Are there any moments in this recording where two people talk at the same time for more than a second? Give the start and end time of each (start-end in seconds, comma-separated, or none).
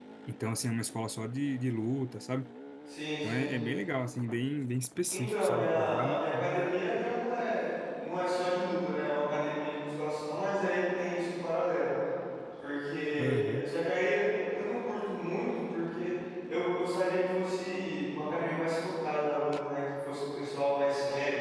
5.1-7.0